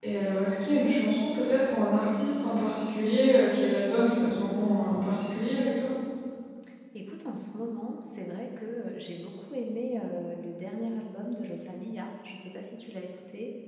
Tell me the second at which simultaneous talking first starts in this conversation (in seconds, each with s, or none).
none